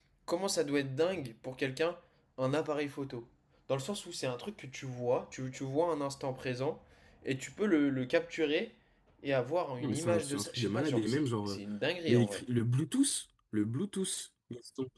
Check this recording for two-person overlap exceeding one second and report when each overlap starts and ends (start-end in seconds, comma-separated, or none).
9.8-11.6